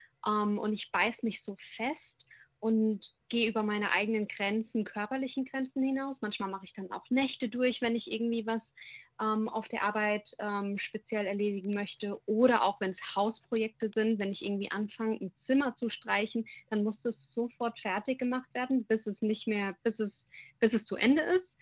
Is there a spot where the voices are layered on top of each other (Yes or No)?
No